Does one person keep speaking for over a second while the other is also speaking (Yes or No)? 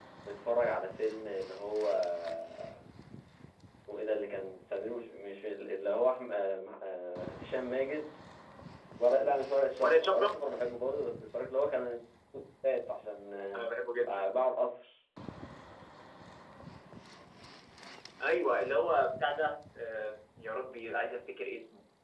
No